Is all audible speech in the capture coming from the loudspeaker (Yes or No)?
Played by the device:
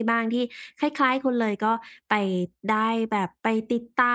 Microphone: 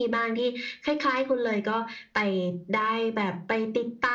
Yes